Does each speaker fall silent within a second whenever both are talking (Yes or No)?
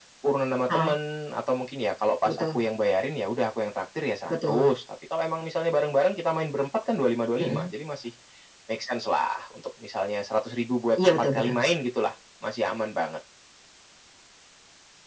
Yes